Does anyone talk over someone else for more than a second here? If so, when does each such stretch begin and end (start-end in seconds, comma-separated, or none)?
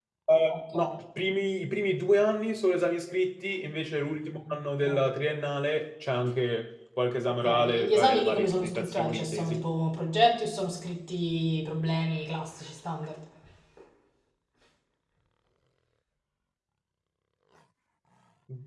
7.4-9.6